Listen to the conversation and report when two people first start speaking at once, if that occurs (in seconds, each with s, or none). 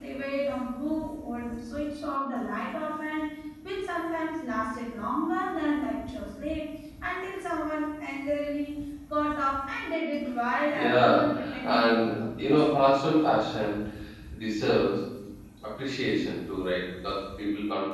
10.7 s